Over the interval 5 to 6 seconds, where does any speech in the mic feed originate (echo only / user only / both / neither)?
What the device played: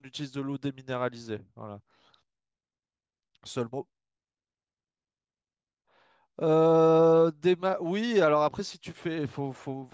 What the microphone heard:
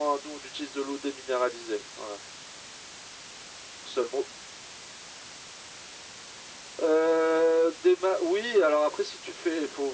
neither